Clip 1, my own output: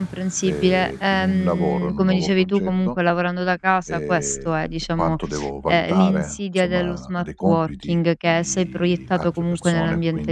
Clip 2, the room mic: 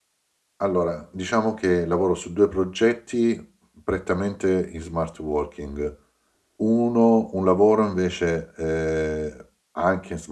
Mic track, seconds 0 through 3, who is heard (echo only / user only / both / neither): user only